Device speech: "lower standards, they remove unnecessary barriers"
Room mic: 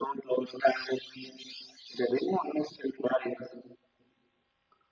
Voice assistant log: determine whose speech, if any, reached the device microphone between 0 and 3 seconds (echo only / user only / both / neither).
echo only